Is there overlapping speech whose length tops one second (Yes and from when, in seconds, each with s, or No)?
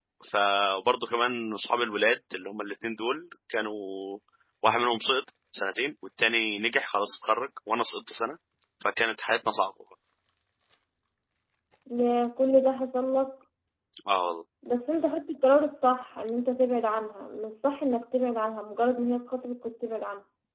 No